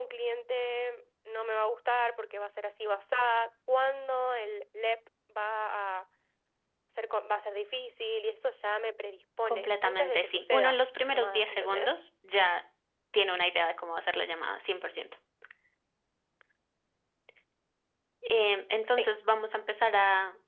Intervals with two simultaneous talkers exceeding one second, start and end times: 9.5-12.0

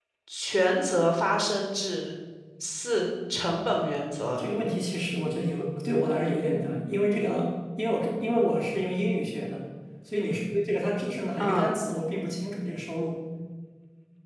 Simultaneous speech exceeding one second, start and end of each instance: none

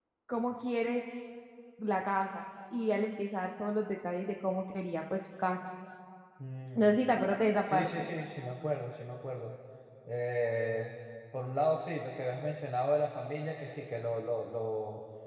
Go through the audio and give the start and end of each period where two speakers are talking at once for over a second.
none

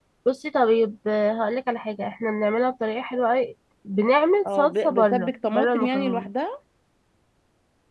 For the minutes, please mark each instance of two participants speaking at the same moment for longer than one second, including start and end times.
4.6-6.3

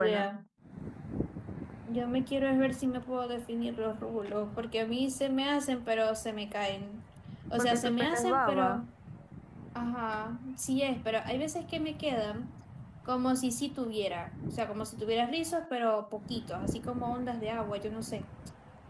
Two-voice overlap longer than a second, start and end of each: 7.6-8.8

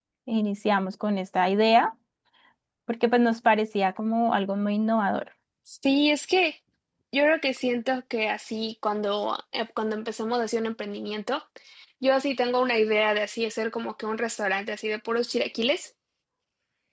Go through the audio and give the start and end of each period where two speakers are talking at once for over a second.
none

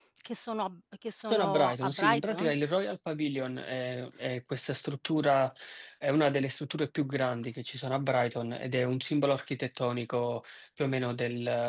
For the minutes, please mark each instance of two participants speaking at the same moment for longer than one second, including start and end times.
1.3-2.5

